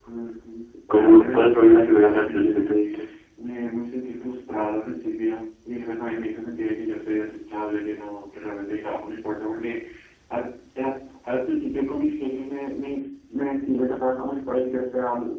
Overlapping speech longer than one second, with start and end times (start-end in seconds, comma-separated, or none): 0.9-2.6